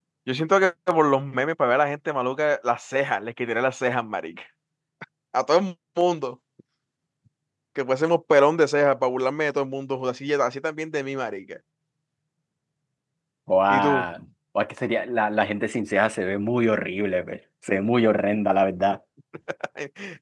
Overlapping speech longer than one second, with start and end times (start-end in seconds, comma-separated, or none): none